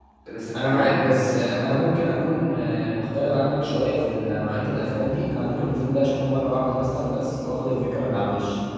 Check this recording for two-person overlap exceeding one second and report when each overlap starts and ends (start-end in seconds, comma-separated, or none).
0.6-1.9